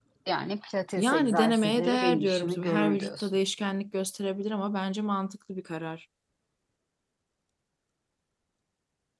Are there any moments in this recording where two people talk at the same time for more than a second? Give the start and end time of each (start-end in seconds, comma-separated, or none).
1.0-3.4